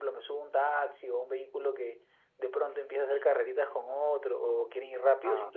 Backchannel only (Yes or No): Yes